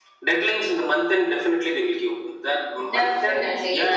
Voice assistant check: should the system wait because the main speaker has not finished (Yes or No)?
No